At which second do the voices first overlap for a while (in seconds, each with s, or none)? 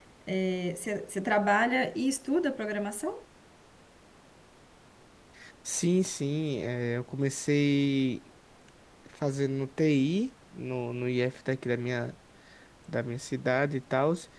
none